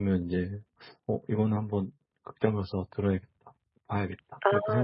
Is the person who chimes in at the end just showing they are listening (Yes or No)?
No